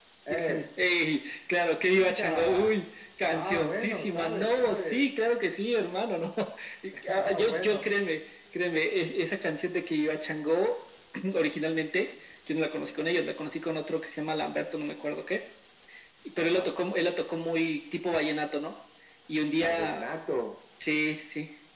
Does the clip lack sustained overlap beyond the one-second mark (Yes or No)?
No